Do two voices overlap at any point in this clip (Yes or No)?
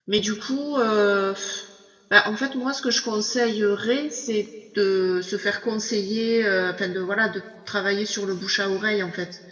No